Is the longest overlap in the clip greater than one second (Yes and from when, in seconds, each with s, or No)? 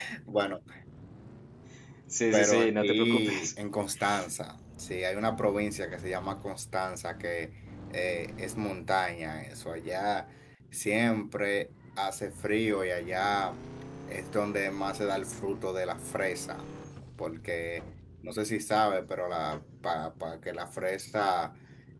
Yes, from 2.3 s